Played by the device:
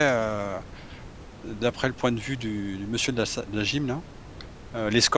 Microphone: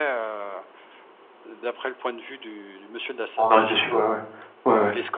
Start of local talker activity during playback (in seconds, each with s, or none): 3.4 s